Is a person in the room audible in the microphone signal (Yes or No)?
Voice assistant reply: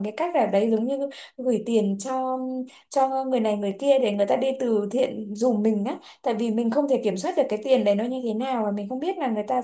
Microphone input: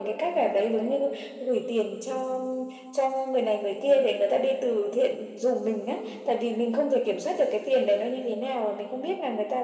No